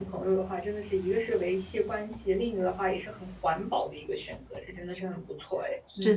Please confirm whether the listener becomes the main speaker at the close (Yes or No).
Yes